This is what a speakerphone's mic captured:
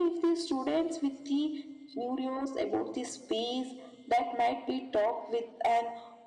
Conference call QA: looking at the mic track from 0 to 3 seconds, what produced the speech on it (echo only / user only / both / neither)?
echo only